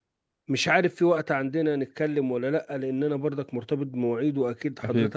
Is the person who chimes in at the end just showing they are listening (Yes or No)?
Yes